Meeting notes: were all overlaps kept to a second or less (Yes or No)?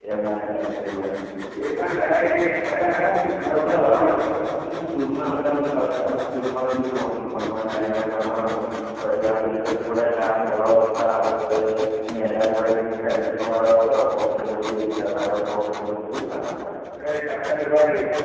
Yes